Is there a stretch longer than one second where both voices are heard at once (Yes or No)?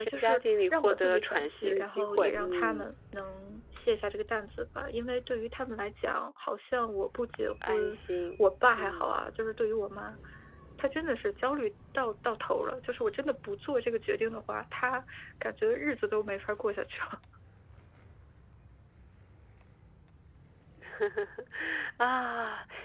Yes